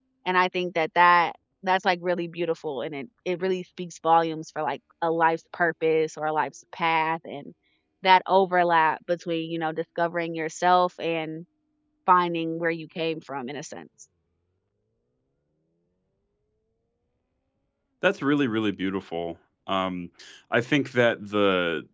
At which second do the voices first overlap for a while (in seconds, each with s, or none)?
none